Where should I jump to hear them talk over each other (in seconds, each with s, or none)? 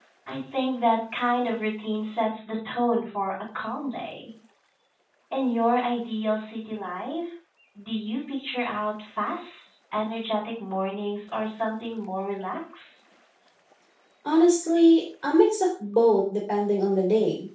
none